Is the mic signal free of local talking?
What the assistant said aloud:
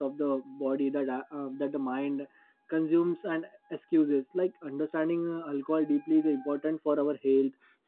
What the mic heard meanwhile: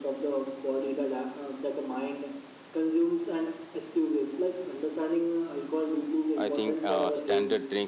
No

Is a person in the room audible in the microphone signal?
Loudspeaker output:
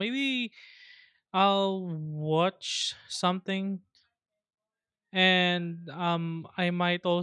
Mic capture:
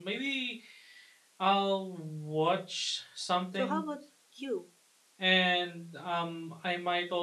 Yes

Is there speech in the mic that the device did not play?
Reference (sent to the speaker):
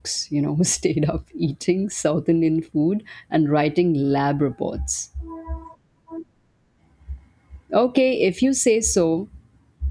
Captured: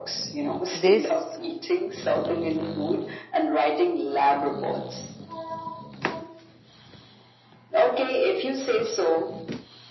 Yes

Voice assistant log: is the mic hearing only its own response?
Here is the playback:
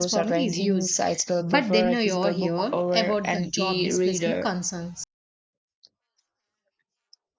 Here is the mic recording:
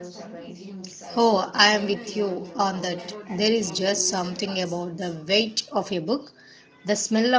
No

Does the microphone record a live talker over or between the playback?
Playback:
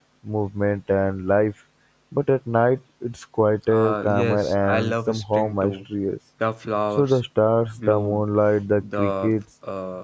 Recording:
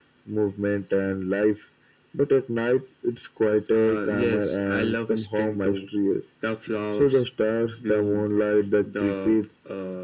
No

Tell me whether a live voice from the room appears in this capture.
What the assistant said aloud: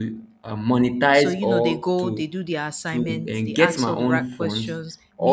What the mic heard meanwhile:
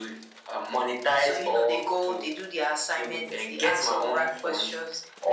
No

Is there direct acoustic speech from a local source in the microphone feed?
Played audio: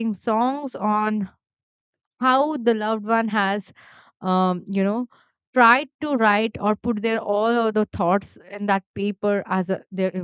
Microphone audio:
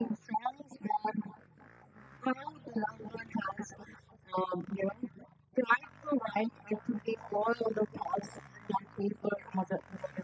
No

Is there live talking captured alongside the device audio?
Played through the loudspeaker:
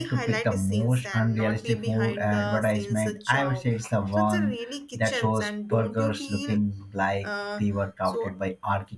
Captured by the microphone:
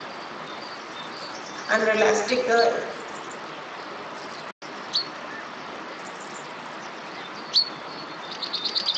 Yes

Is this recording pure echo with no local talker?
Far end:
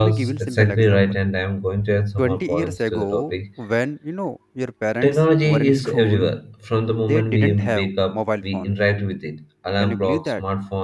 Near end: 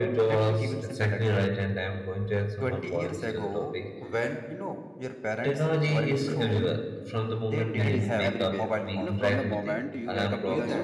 No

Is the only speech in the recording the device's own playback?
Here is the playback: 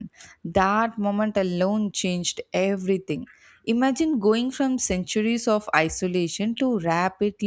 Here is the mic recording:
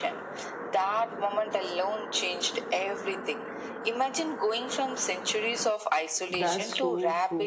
No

